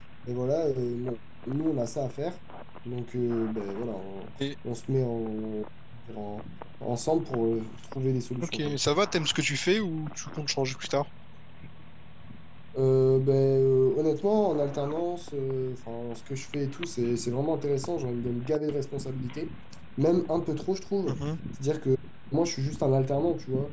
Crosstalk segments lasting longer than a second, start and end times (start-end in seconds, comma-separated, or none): none